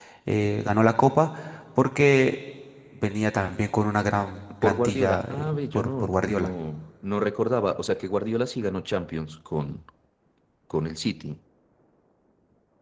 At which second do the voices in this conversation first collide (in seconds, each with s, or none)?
4.6 s